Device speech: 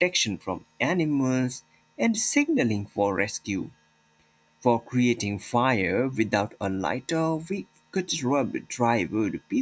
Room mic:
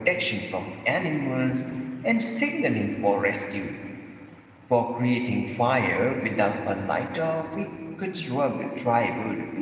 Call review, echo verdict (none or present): present